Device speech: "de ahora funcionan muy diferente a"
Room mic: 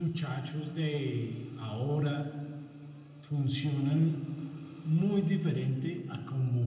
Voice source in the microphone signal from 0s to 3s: echo only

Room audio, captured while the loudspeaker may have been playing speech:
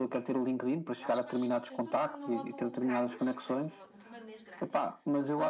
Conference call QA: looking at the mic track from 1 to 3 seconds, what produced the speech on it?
both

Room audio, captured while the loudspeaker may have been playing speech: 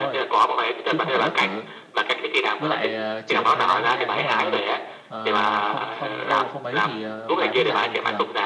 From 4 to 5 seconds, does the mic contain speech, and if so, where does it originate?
both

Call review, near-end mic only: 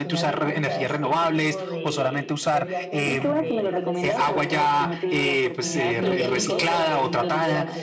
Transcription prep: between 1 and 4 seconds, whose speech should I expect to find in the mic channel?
both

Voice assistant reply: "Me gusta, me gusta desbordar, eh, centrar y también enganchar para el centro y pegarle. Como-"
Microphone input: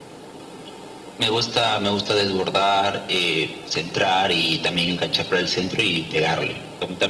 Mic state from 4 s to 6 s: echo only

